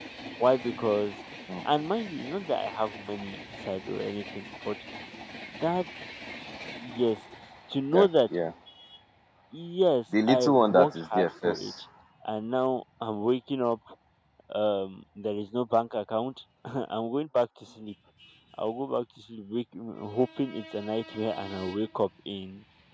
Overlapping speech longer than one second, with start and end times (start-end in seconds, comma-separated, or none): 10.3-11.7